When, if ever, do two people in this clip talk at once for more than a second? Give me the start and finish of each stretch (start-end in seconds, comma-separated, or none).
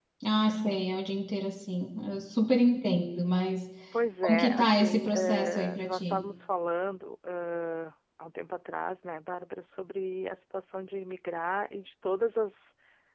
4.2-6.2